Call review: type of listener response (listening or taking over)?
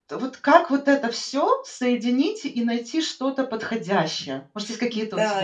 taking over